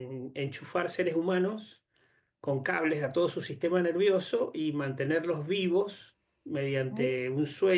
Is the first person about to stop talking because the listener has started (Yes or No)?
No